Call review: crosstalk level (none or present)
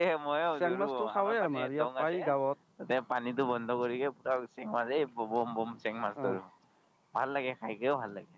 present